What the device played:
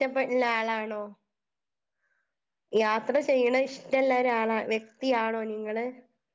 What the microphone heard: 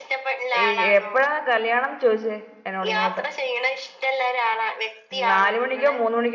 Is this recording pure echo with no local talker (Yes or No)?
No